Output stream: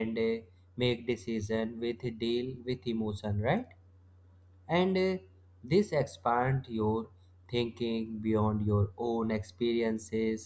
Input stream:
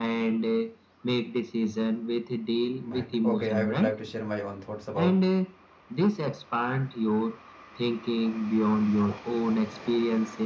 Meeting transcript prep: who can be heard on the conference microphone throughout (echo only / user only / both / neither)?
both